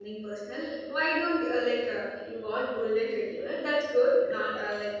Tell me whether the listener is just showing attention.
Yes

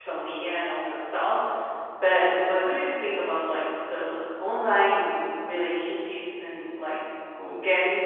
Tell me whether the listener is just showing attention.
Yes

